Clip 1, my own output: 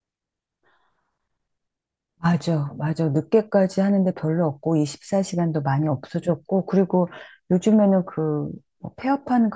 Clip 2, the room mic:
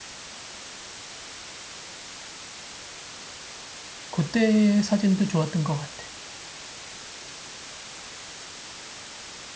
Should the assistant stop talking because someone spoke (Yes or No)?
Yes